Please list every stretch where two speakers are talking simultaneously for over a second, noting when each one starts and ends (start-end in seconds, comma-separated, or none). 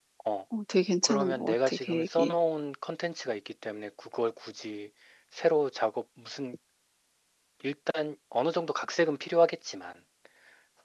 1.0-2.4